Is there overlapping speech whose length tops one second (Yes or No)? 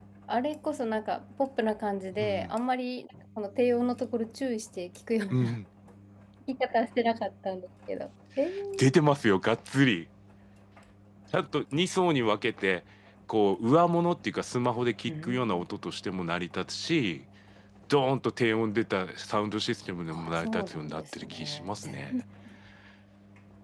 Yes